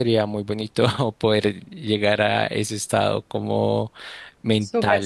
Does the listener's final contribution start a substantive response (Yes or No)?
Yes